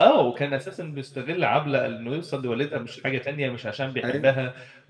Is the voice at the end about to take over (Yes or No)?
No